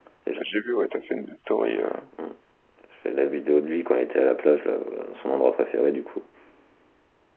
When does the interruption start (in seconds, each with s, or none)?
none